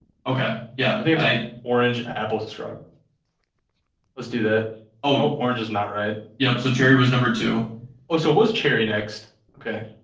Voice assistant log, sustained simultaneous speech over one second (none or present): none